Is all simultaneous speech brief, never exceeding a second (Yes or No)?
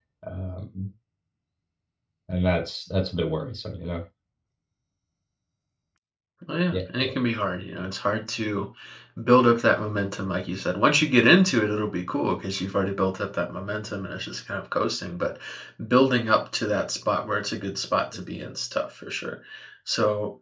Yes